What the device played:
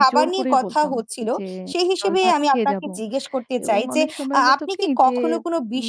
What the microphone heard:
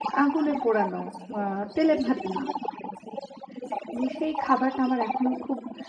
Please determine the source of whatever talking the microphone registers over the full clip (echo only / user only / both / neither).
both